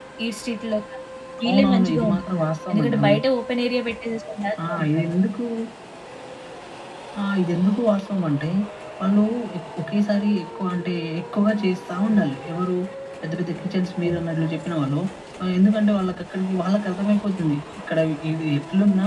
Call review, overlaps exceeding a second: present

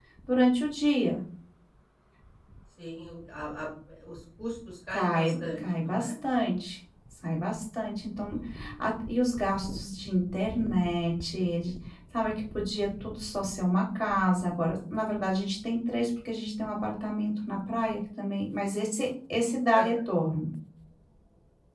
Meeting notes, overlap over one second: present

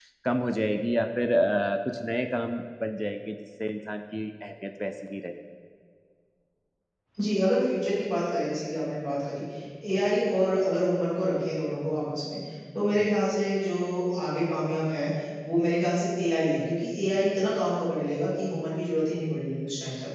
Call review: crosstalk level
none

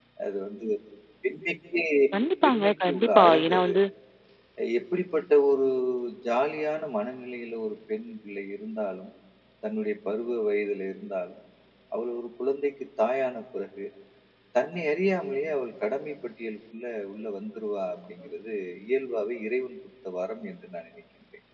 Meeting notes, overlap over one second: present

